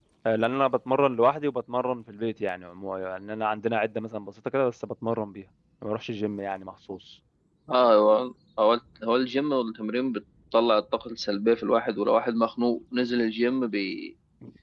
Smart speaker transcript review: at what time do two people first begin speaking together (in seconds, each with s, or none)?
none